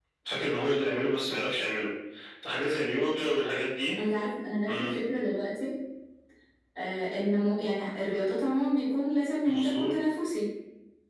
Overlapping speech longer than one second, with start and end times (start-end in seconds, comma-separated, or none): none